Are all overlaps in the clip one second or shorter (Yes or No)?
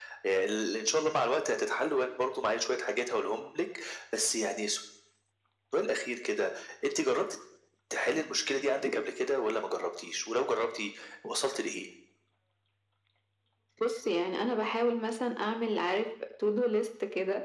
Yes